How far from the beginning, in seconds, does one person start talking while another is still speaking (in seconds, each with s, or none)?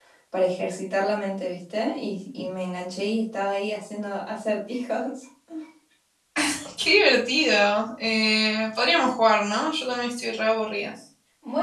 none